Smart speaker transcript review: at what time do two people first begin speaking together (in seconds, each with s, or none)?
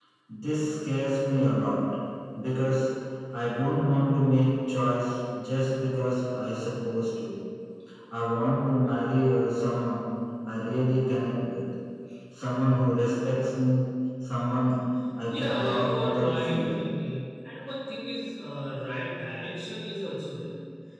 15.3 s